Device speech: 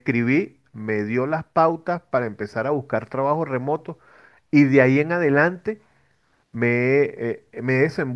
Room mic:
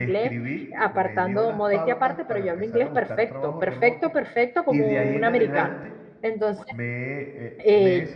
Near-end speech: present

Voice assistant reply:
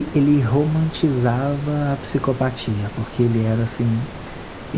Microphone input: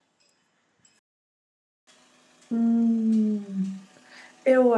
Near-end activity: present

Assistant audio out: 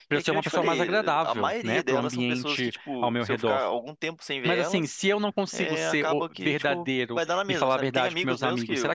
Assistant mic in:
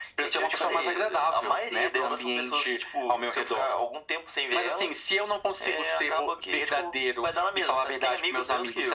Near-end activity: none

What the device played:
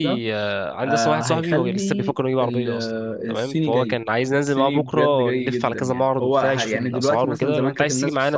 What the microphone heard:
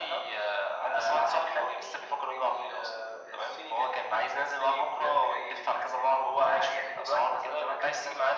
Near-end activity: none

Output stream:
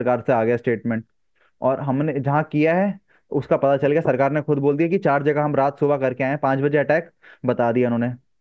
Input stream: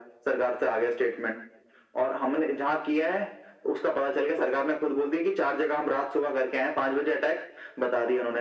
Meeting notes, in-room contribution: none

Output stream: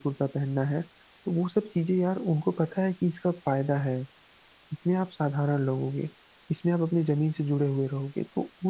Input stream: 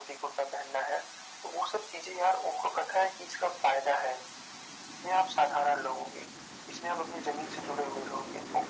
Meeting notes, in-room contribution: none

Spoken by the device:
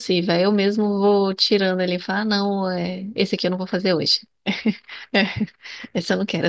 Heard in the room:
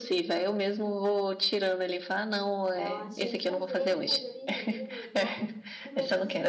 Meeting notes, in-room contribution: present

